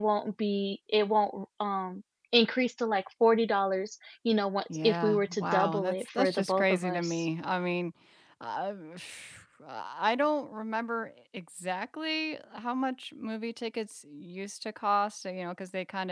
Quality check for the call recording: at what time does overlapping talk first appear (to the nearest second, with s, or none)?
5 s